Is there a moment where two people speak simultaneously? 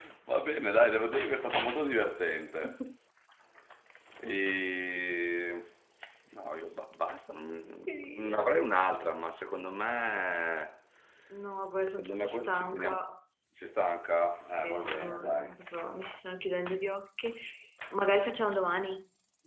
Yes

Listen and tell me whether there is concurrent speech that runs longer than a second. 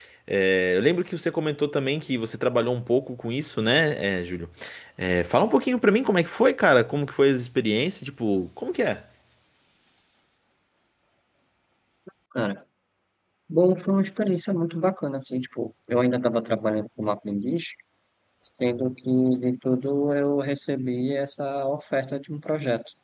No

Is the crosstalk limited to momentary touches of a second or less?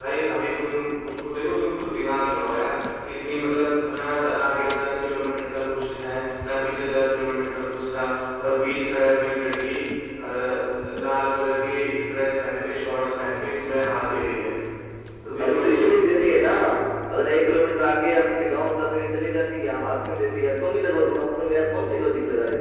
Yes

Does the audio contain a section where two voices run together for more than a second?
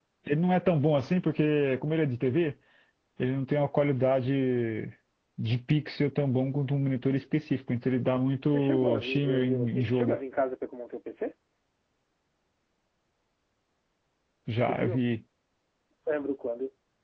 Yes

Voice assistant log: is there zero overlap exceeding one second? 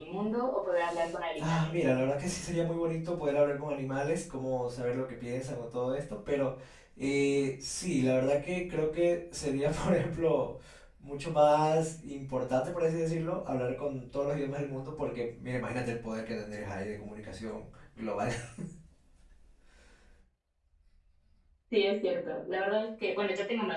Yes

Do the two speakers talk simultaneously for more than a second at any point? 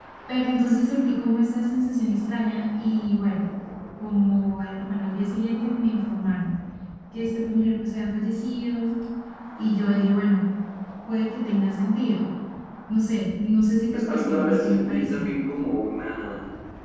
Yes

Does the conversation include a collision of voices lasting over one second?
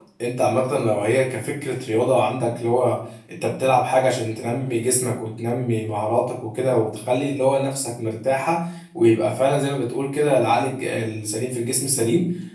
No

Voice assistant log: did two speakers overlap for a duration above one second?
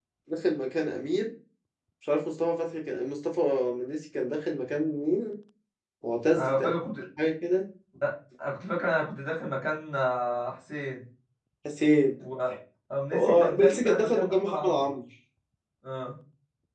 Yes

